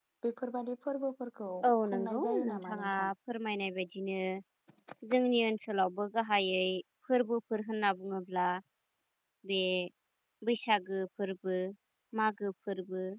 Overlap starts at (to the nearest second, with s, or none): 2 s